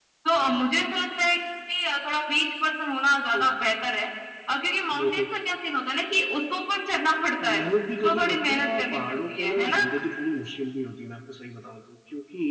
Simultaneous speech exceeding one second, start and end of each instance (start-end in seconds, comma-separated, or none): 8.0-9.8